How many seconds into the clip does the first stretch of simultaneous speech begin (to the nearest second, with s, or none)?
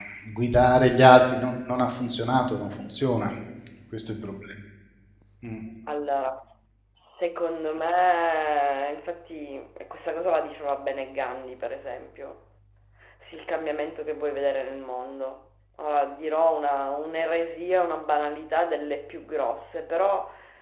none